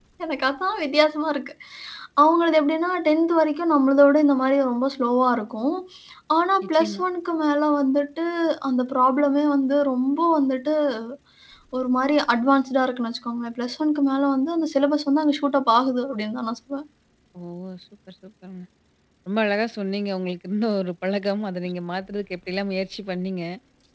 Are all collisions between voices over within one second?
Yes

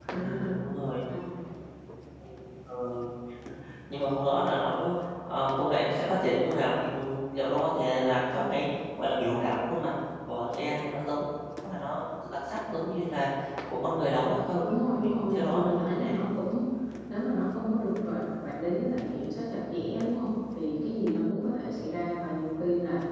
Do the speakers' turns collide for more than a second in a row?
Yes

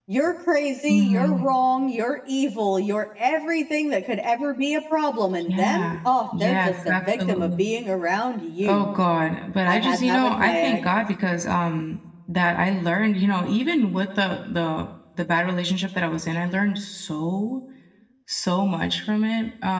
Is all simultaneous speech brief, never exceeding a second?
No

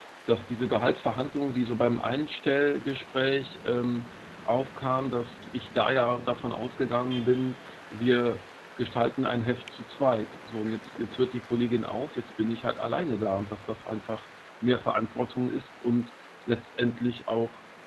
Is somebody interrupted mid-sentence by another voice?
No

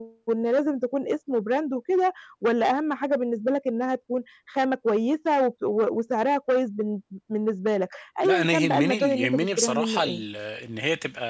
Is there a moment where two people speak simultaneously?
Yes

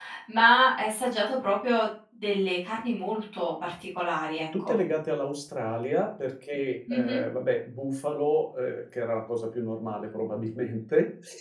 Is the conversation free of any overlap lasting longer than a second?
Yes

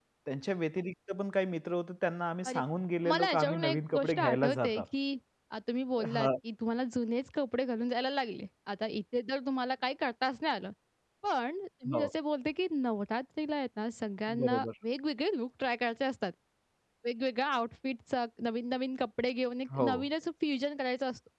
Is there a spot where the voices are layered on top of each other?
Yes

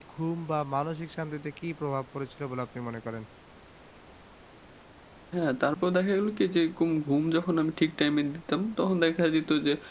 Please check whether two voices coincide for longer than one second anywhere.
No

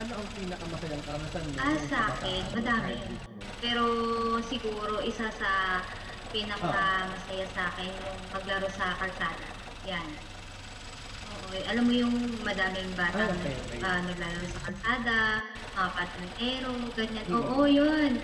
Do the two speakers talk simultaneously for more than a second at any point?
Yes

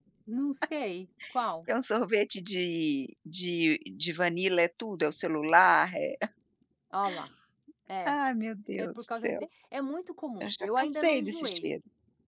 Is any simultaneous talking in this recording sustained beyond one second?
Yes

